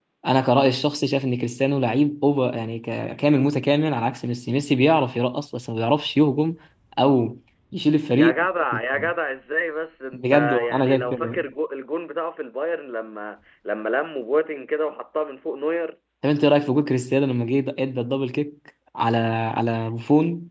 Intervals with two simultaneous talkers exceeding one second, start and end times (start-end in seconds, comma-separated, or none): 10.1-11.4